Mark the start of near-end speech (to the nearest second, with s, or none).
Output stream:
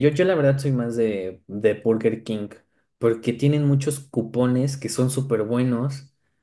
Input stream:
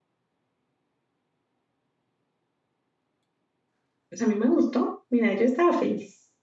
4 s